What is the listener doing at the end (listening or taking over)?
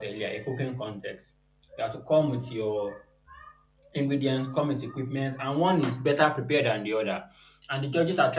listening